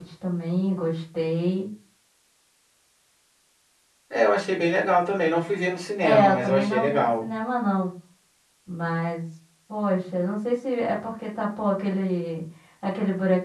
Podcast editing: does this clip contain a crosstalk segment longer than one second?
Yes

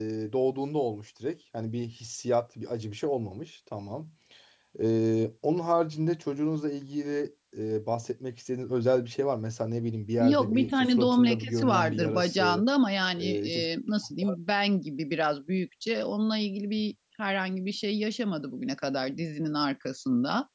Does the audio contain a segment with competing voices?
Yes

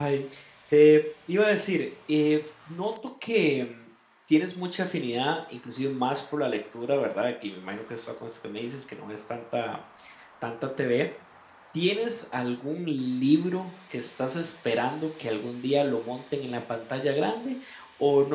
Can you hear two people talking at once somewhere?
No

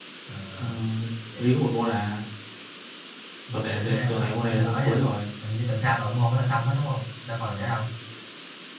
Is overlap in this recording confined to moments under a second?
No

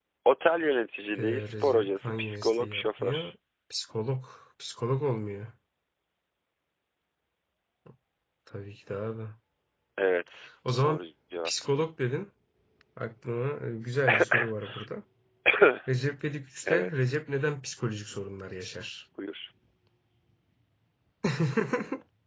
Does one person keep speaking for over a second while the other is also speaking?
Yes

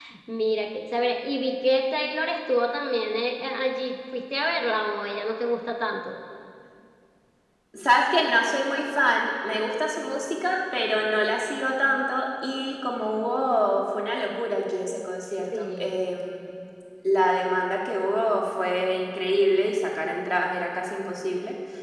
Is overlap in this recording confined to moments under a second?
Yes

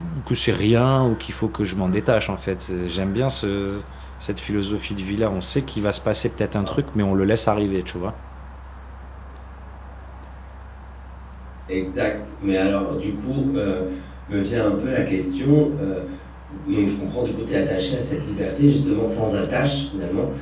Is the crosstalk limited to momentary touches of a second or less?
Yes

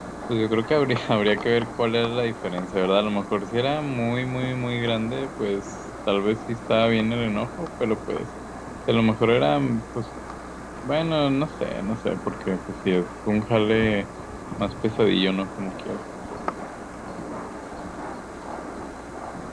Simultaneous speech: No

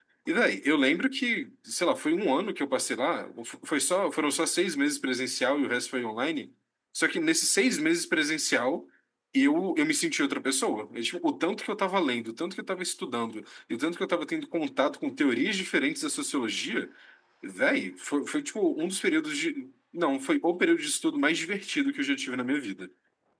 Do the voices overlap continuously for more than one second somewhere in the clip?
No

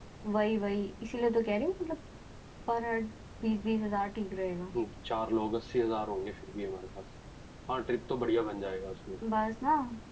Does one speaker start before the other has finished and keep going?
No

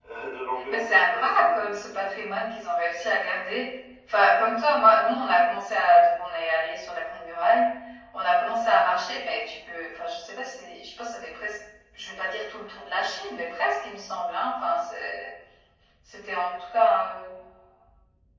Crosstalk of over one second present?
Yes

